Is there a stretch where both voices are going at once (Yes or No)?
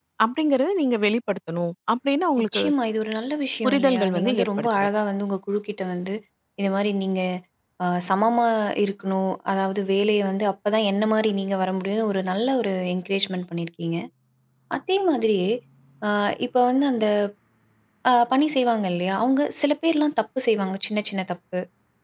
Yes